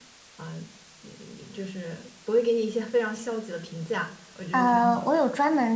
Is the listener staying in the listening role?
No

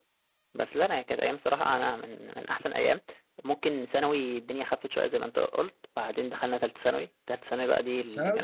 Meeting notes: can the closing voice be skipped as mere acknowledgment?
No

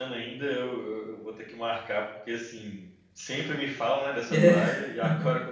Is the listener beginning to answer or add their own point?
No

